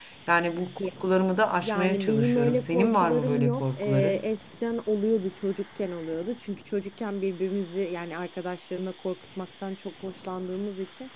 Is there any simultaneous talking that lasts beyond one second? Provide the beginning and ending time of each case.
1.6-4.2

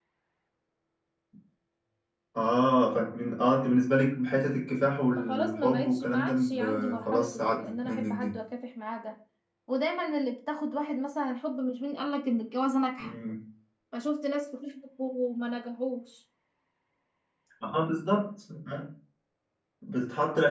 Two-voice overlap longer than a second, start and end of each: 5.1-8.3

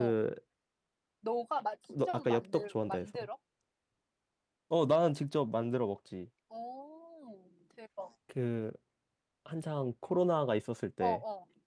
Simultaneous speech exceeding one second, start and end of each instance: 1.9-3.3

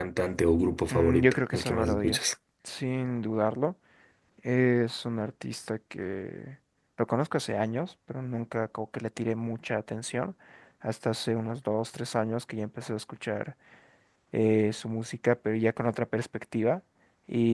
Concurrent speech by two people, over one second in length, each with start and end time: 0.9-2.3

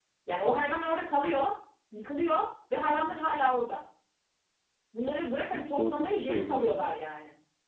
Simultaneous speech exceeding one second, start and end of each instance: 5.4-6.9

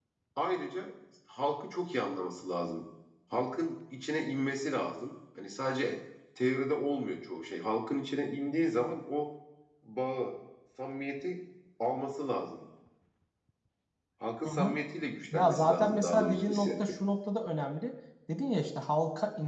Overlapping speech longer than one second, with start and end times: 15.3-16.7

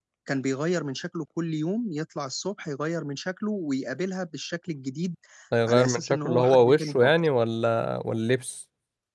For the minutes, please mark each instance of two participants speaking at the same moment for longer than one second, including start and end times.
5.7-7.1

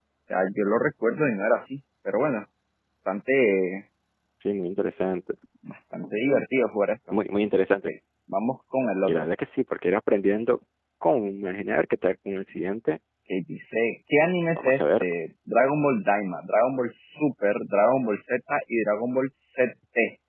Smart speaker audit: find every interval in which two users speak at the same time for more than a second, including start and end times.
none

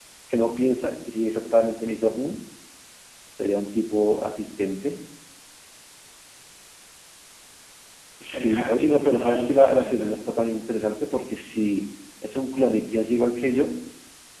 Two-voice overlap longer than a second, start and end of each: 8.2-10.1

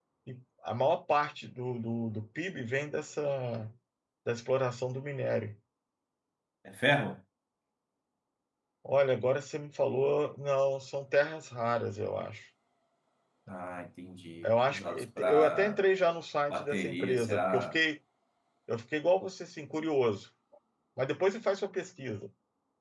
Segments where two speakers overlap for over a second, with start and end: 14.4-15.8, 16.5-17.8

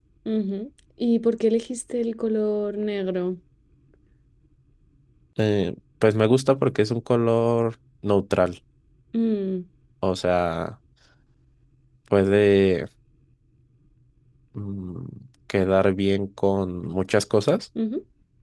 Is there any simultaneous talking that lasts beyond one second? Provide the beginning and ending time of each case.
none

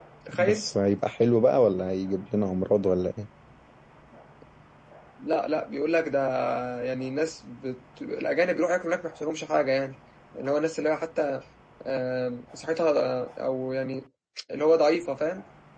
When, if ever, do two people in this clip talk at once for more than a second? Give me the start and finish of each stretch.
none

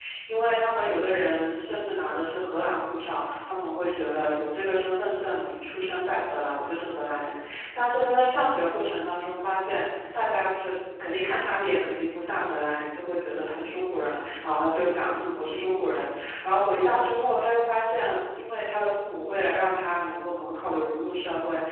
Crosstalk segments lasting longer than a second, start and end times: none

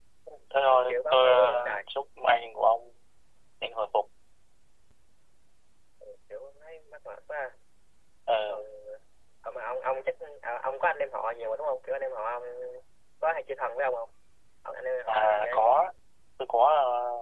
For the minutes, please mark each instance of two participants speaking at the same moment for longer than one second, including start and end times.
0.7-1.9

